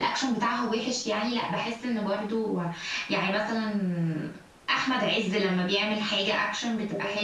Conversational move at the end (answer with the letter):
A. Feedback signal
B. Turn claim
B